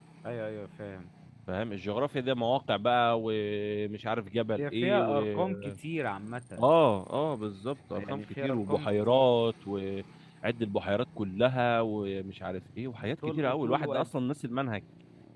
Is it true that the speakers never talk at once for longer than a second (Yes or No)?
No